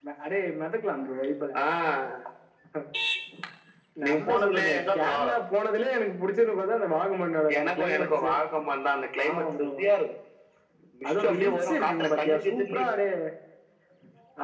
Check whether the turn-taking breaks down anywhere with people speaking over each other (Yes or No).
Yes